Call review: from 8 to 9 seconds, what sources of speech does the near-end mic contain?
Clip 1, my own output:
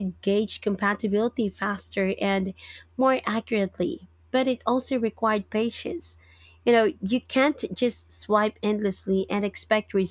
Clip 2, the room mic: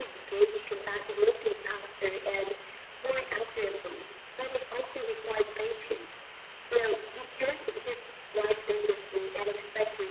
echo only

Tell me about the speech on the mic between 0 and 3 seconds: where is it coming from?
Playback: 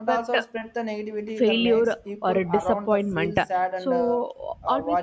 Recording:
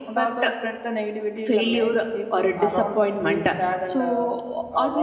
echo only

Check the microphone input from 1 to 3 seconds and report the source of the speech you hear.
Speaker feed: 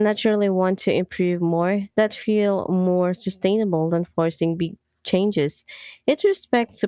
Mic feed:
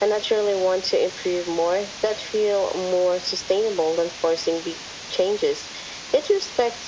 echo only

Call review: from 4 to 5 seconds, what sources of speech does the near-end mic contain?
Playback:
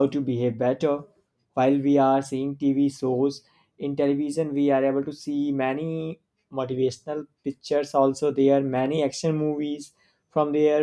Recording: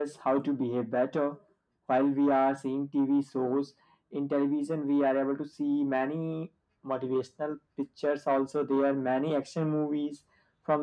echo only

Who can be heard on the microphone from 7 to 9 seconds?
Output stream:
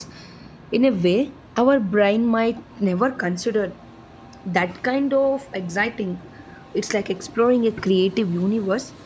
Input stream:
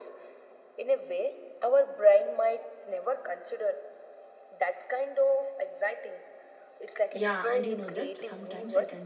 both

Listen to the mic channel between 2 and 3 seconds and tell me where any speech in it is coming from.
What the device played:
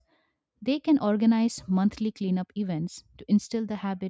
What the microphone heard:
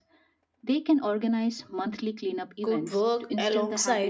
both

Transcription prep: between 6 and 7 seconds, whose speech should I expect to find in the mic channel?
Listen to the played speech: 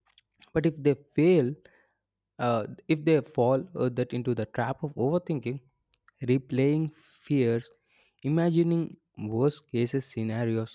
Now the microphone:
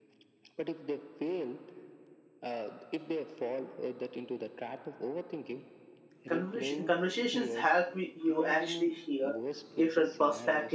both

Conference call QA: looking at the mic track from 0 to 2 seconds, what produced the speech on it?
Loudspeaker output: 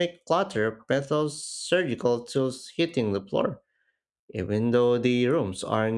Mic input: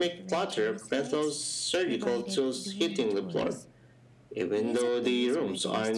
both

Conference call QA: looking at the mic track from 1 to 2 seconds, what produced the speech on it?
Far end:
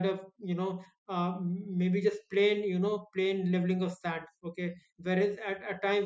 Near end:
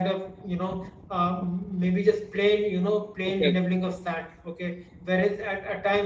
echo only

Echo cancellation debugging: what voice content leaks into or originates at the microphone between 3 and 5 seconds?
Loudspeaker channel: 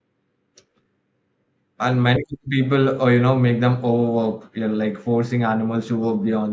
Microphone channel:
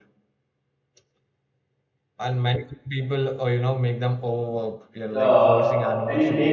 echo only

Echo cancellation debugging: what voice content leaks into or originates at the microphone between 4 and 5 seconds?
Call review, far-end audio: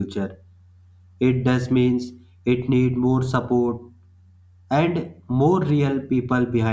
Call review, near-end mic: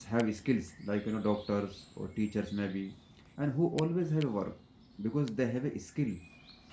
user only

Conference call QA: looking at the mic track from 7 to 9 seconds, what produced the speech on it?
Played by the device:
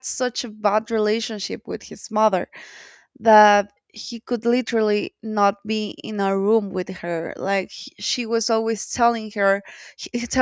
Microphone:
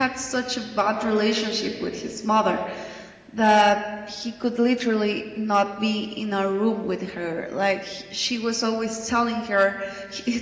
echo only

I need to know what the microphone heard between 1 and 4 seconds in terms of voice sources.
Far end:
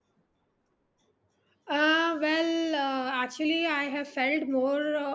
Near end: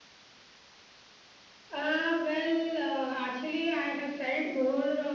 echo only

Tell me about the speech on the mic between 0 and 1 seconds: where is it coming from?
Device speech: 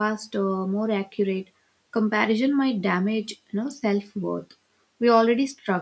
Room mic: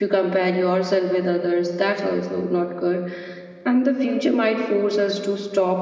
user only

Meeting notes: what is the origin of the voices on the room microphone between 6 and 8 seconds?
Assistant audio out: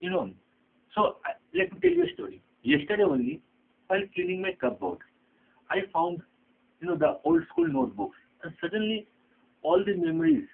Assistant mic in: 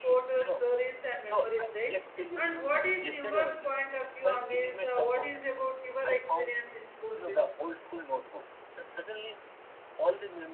both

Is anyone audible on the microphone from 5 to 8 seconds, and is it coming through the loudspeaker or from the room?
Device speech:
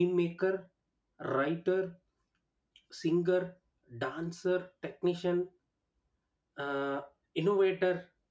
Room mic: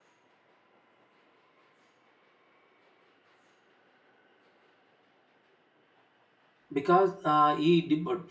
user only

